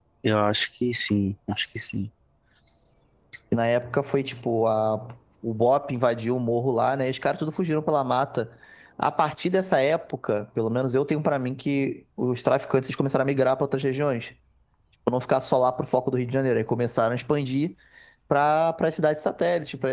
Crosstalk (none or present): none